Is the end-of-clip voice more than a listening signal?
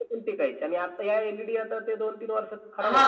Yes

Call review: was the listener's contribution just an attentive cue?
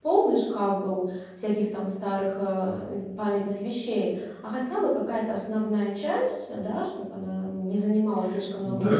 No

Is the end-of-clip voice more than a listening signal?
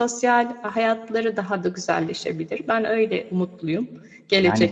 Yes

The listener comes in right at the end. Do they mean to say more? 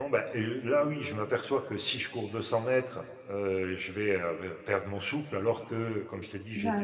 No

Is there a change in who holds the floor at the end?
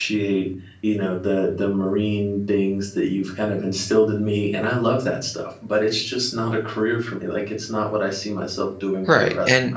Yes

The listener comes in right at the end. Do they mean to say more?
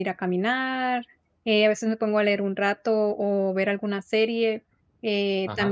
No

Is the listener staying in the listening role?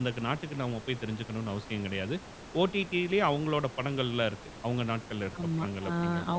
No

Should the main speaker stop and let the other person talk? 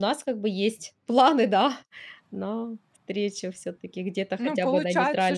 Yes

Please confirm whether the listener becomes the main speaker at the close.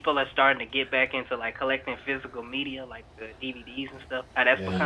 No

